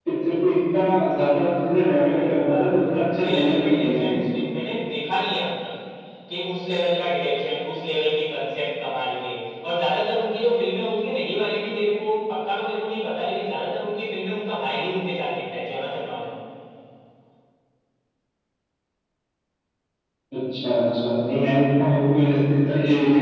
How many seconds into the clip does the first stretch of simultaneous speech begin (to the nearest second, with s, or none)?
2 s